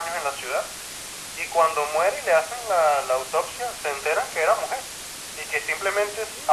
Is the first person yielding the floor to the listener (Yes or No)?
No